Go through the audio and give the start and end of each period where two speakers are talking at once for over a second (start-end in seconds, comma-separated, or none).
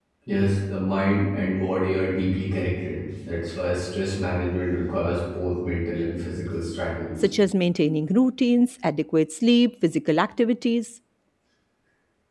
none